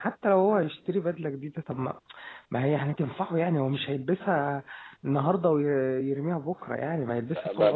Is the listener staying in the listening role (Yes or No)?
No